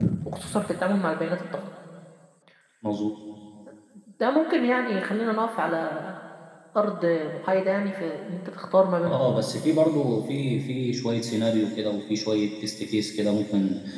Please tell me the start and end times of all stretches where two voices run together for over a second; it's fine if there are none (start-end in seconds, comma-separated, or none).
none